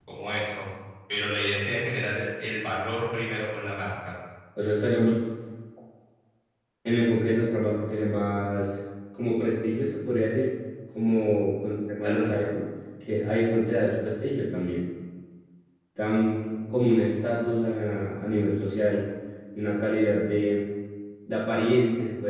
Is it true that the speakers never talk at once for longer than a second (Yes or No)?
Yes